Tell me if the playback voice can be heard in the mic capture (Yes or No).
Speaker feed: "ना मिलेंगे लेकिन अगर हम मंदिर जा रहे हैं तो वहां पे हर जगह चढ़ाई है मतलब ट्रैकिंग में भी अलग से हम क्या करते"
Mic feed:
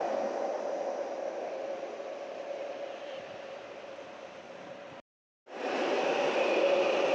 No